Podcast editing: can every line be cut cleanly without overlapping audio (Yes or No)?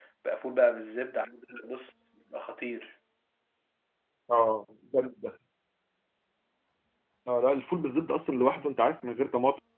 Yes